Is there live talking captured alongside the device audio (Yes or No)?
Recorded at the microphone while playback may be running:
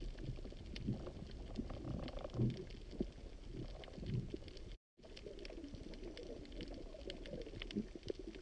No